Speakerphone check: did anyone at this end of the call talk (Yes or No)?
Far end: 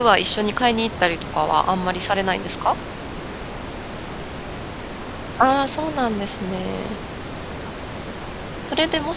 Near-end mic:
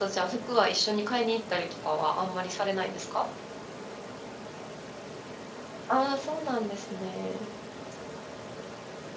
No